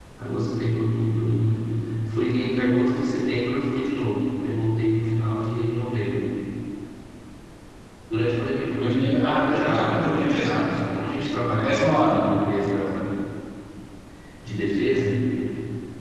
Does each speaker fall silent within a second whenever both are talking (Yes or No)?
No